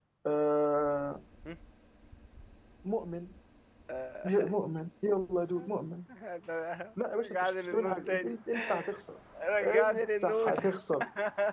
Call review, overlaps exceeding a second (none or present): present